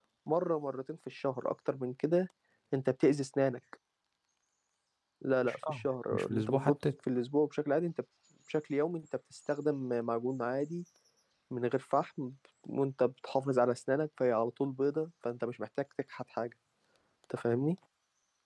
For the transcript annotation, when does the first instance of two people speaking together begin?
5.5 s

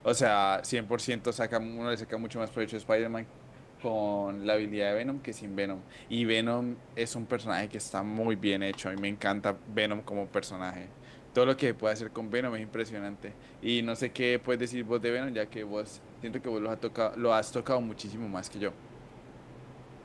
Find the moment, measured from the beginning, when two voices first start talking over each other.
none

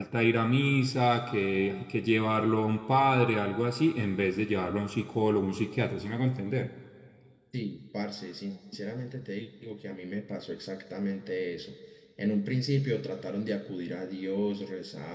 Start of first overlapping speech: none

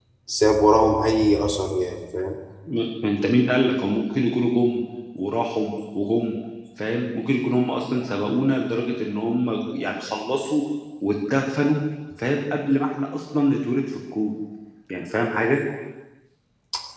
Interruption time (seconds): none

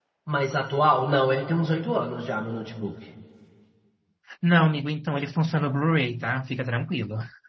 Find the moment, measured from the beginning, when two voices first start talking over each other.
none

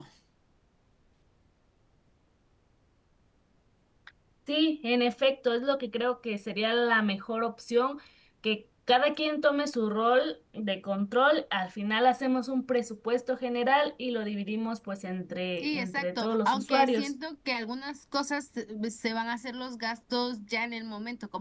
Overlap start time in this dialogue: 15.6 s

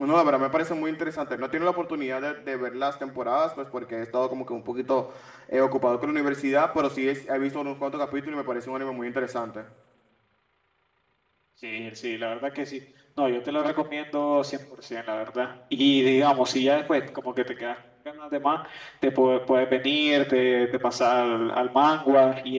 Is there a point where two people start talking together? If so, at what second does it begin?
none

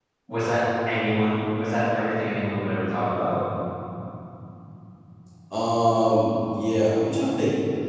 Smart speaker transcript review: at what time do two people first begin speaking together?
none

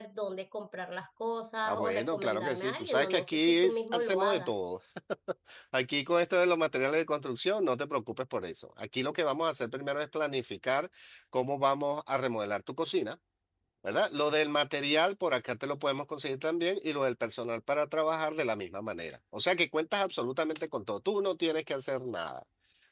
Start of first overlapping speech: 1.6 s

